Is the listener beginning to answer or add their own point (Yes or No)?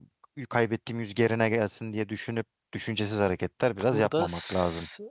Yes